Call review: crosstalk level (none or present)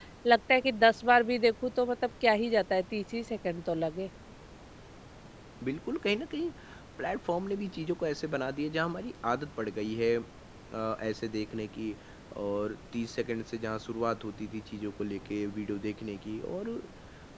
none